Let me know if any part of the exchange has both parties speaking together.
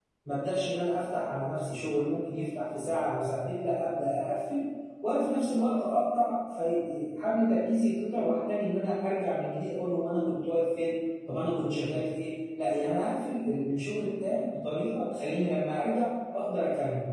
No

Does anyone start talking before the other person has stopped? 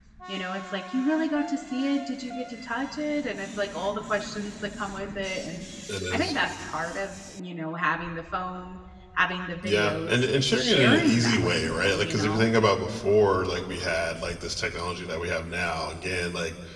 Yes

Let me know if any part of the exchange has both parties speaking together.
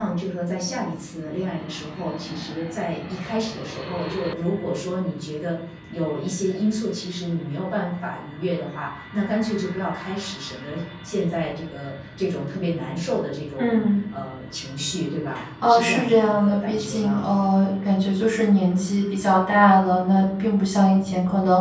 Yes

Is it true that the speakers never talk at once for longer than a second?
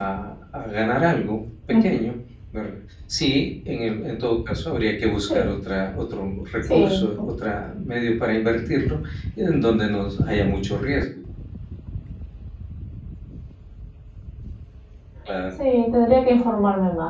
Yes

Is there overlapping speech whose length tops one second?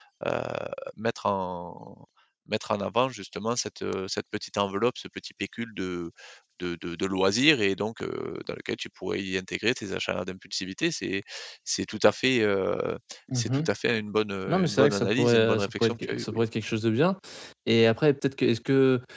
Yes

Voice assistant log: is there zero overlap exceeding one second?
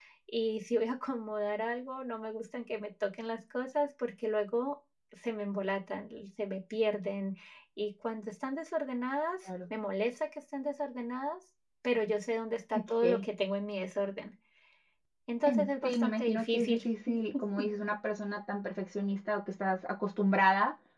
No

